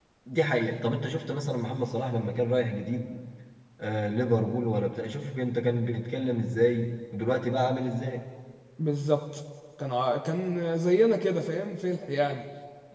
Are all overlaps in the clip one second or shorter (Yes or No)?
Yes